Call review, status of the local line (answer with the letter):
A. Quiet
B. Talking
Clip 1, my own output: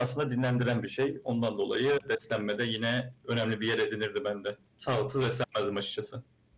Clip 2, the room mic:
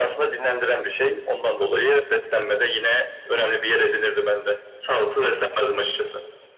A